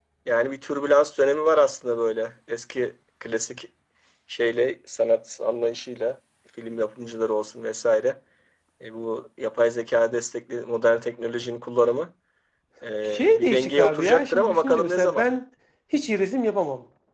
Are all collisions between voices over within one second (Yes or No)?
No